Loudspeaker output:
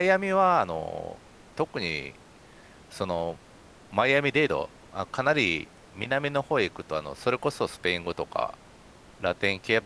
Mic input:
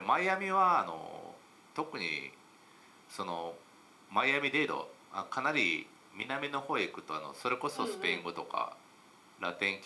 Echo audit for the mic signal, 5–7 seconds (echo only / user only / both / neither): echo only